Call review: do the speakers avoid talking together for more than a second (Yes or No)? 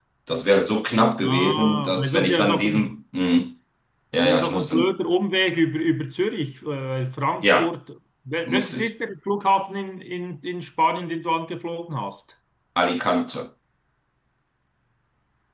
No